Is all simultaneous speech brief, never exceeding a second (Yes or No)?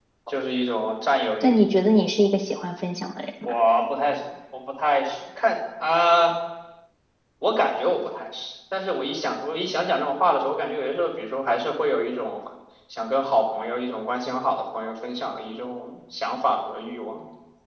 Yes